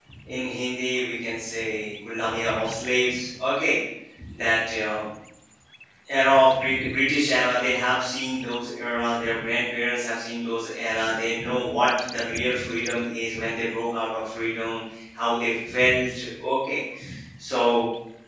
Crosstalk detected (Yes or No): No